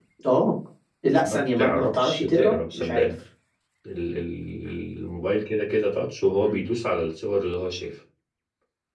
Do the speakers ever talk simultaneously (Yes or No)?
Yes